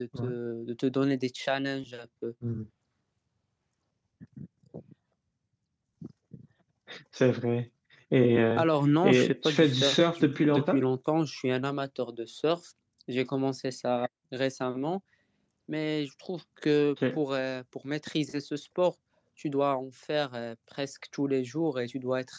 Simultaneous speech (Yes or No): Yes